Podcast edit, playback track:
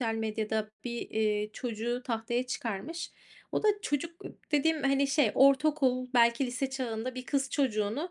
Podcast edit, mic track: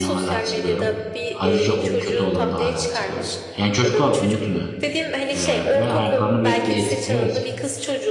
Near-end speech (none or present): present